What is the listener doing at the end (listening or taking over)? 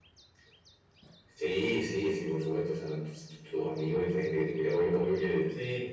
listening